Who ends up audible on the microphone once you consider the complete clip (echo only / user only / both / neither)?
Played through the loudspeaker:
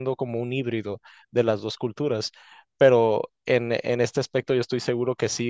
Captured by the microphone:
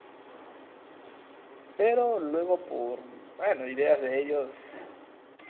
user only